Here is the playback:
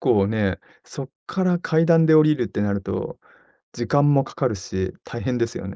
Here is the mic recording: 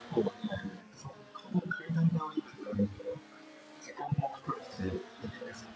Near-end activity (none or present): none